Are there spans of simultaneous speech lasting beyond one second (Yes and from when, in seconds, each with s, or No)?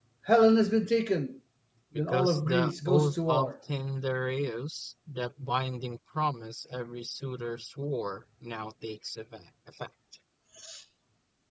Yes, from 2.1 s